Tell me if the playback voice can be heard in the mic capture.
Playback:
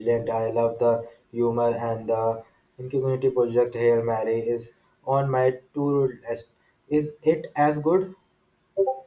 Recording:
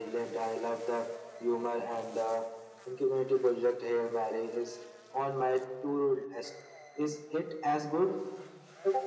Yes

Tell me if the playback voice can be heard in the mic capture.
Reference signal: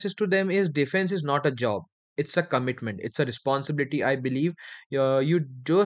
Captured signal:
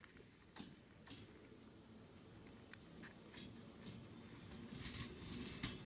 No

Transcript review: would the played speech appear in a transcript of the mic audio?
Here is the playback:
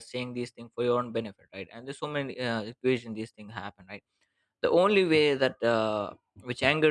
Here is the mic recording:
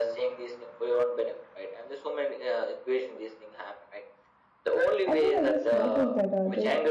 Yes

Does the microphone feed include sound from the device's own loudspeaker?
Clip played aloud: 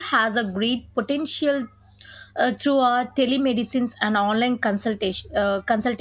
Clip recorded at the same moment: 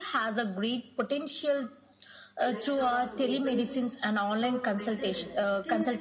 Yes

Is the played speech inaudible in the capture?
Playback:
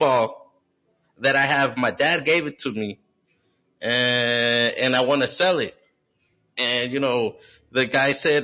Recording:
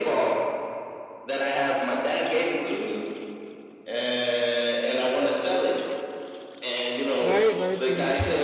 No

